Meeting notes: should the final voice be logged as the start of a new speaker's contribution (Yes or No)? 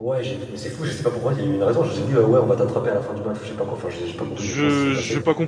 Yes